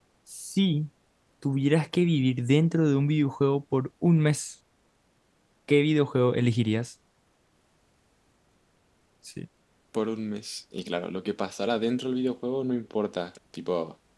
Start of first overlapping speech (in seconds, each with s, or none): none